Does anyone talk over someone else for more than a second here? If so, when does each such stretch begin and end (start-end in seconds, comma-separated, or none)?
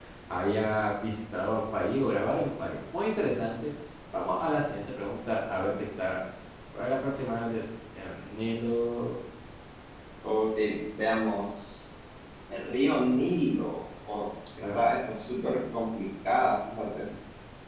none